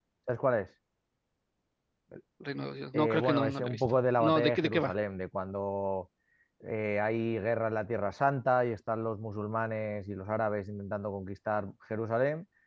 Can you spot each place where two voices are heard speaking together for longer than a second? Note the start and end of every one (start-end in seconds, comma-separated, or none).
2.9-4.9